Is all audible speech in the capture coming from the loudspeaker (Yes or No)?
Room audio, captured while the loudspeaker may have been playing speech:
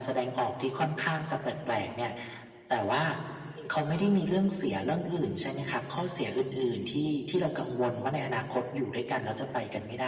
Yes